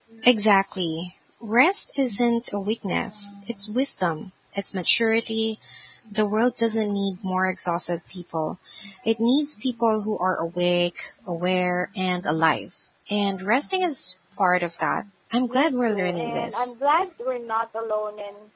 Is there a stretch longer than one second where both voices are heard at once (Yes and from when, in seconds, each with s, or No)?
Yes, from 15.5 s